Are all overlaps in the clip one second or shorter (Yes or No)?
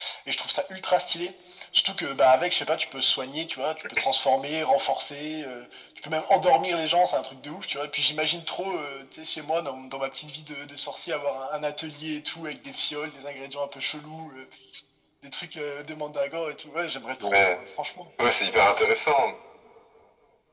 Yes